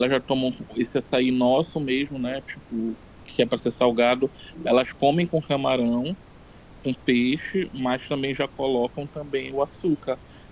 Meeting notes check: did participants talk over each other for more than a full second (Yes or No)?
No